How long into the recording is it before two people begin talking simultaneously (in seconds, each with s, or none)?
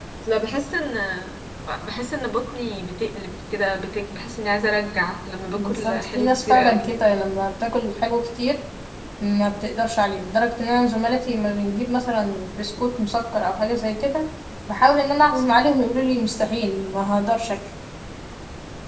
5.6 s